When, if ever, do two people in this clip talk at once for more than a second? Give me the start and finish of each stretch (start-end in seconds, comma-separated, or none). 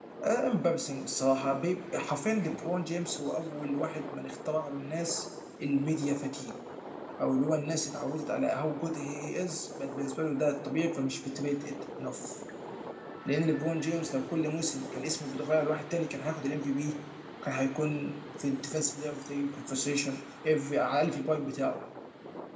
none